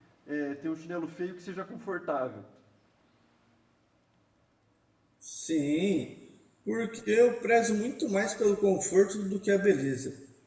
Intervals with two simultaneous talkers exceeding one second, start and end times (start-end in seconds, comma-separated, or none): none